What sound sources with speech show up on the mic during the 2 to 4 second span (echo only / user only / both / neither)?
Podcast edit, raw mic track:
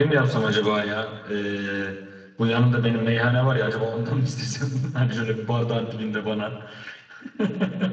user only